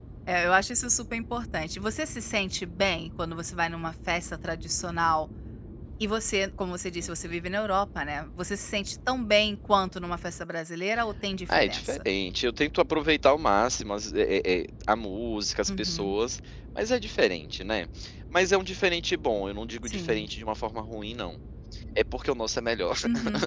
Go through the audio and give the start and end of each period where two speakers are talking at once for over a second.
none

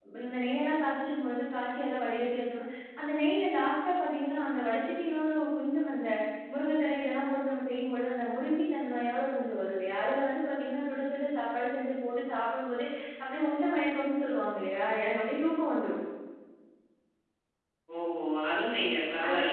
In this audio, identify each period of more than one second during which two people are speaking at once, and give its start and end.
none

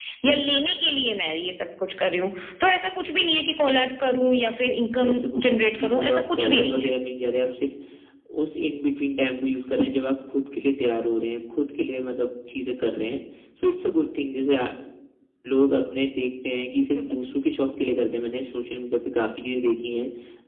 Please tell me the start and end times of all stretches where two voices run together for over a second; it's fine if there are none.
5.0-6.9

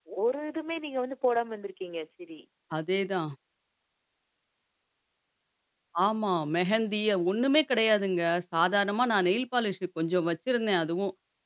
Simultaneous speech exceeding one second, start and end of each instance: none

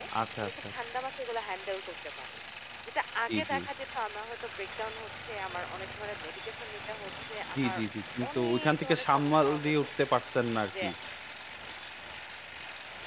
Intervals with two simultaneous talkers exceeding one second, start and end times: 8.4-9.9

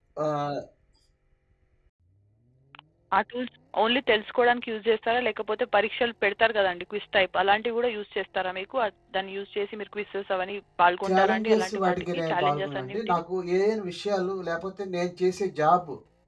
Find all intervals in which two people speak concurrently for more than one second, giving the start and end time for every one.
11.1-13.2

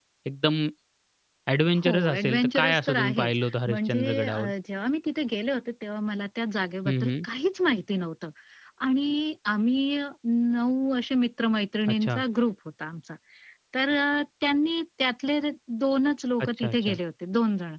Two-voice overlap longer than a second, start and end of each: 1.8-4.5

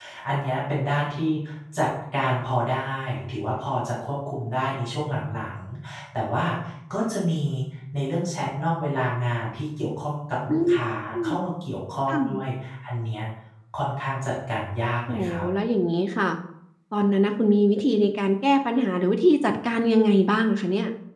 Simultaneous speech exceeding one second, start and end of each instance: none

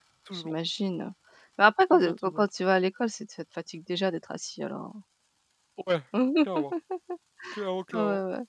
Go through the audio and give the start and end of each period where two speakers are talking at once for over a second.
none

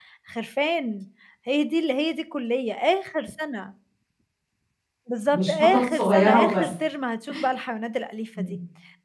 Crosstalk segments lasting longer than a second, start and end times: 5.3-6.7

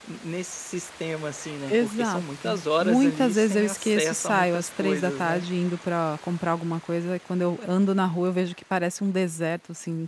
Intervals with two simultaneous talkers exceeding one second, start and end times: 1.7-5.5

